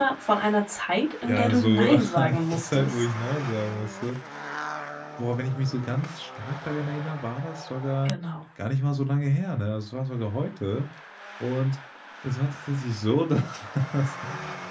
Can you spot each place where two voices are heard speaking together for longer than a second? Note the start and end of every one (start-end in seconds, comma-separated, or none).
1.3-3.0